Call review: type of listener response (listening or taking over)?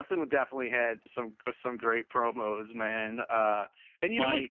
listening